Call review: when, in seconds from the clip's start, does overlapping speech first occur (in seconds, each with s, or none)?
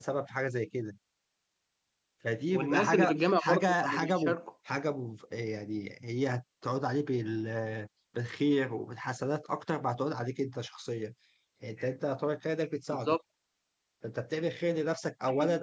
2.5 s